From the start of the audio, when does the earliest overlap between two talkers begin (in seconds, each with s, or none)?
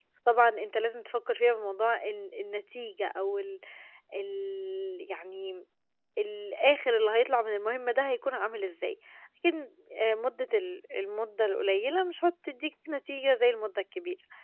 none